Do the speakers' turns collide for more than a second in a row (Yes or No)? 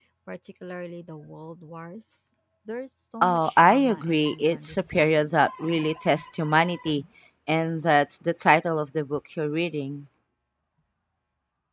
Yes